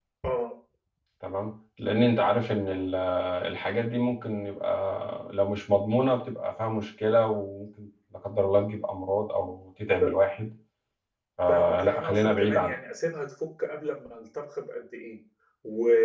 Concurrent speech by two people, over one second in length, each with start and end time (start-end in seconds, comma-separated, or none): 11.5-12.8